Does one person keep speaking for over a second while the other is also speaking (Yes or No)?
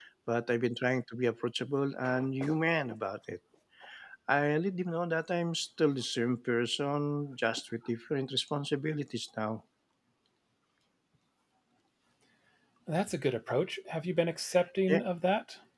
No